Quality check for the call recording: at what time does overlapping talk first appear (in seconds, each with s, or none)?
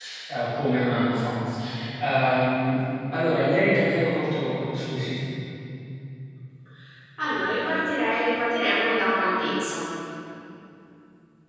none